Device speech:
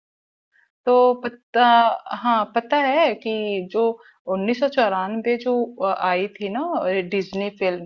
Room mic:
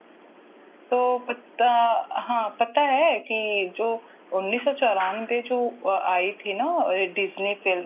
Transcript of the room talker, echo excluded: none

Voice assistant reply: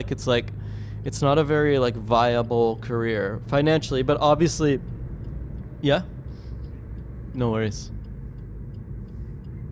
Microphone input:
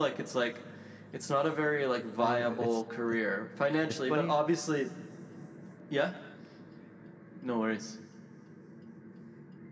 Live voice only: it's it's, it's funny.

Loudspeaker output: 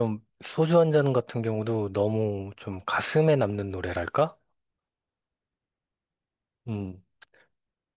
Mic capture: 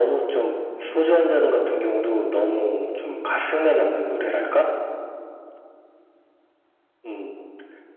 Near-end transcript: none

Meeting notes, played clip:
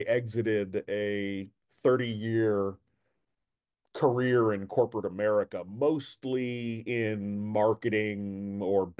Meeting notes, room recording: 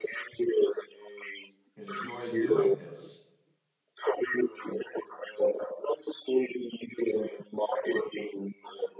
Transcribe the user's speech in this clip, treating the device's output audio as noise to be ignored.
enjoy doing this.

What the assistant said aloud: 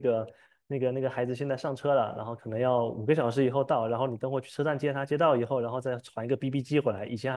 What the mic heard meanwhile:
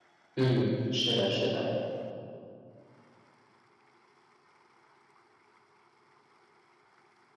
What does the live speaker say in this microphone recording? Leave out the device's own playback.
嗯，是的，是的，

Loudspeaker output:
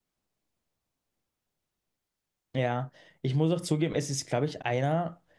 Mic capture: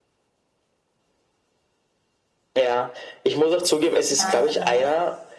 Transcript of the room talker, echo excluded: Nein, nein, nein.

